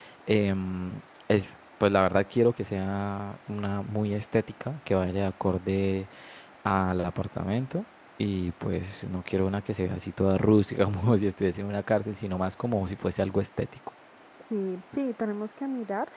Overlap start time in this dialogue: none

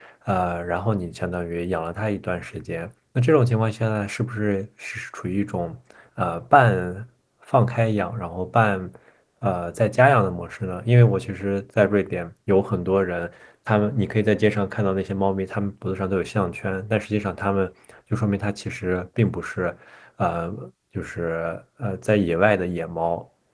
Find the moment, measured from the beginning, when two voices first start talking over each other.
none

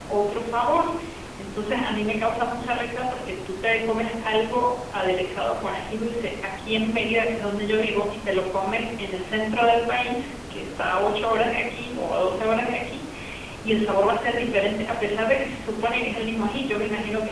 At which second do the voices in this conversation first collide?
none

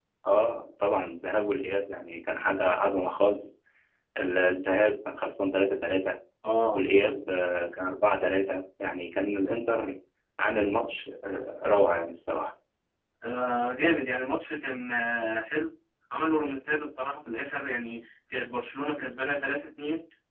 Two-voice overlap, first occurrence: none

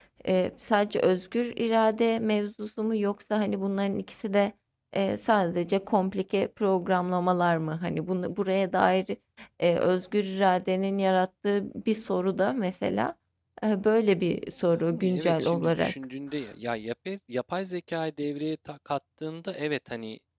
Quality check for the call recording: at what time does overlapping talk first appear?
14.7 s

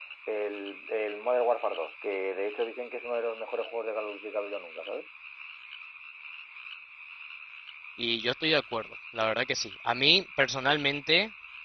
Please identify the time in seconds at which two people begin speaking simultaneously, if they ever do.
none

